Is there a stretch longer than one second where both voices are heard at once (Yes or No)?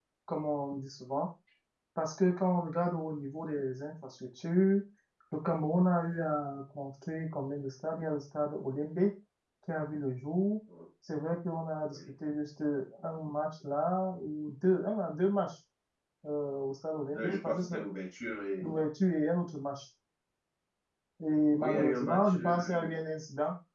Yes